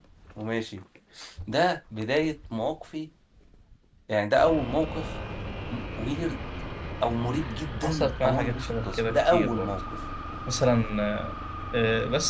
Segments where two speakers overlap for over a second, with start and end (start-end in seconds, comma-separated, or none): 7.8-9.7